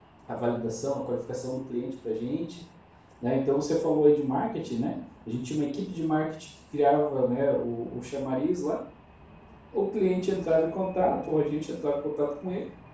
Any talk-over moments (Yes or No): No